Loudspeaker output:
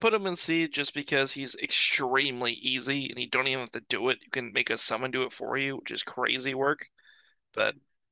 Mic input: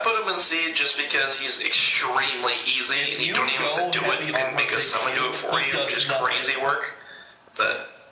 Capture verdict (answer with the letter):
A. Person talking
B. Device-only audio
A